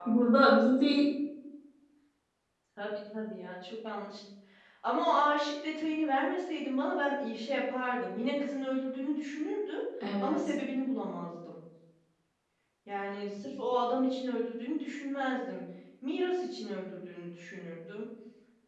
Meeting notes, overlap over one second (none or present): none